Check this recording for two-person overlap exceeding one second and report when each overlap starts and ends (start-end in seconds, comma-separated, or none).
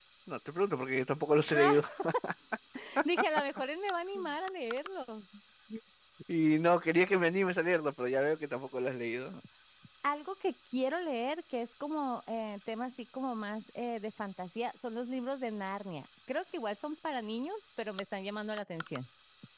none